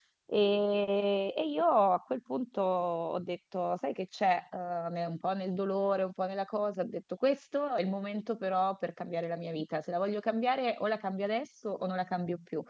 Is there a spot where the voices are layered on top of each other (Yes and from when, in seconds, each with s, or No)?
No